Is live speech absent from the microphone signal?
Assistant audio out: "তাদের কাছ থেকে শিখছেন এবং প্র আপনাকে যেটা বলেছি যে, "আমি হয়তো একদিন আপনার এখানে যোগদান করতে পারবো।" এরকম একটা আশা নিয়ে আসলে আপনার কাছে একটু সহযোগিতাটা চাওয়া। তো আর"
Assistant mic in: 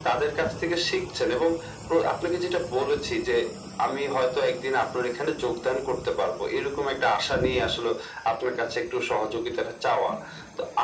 Yes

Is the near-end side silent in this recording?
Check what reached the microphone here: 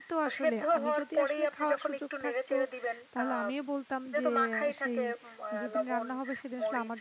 No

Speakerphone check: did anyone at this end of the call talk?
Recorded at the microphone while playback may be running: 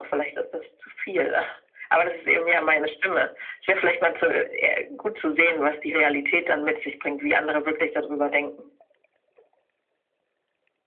No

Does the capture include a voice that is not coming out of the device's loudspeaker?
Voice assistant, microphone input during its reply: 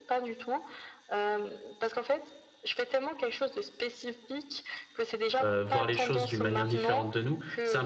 Yes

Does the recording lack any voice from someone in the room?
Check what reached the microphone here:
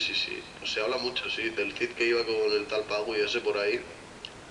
Yes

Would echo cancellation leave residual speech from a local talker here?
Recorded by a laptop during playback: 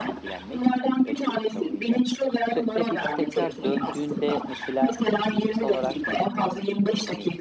Yes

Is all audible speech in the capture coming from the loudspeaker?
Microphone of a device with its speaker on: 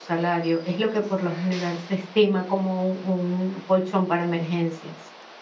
No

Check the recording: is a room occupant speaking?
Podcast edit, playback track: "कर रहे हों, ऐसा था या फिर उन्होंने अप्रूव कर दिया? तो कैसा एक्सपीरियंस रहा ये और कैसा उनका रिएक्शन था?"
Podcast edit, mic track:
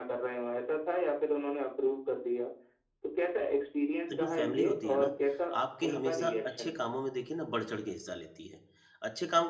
Yes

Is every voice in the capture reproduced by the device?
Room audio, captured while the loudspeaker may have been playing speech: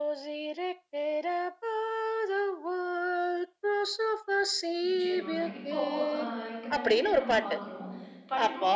No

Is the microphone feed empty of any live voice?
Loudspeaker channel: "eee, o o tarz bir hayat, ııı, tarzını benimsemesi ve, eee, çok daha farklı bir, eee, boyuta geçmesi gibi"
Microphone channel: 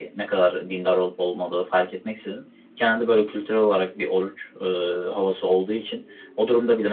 No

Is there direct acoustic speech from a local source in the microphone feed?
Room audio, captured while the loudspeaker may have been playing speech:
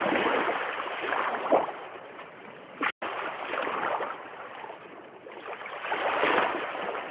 No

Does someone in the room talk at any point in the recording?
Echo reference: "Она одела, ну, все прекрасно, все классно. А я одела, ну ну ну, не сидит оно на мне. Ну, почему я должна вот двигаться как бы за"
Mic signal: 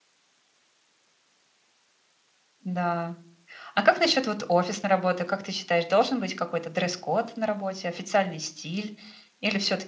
Yes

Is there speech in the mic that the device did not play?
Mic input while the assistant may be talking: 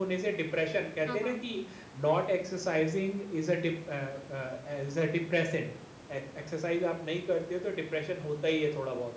Yes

